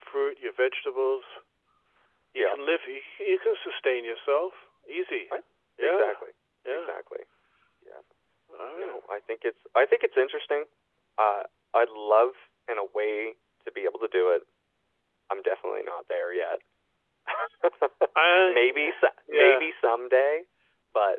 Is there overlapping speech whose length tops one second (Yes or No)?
Yes